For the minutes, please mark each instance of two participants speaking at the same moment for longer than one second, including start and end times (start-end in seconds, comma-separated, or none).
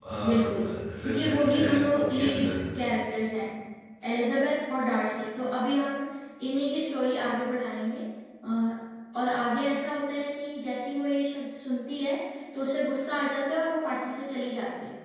1.0-2.6